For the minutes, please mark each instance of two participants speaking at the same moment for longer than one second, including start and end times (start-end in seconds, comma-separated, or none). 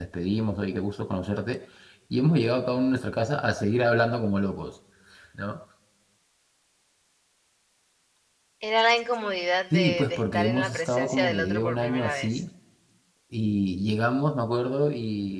9.7-12.4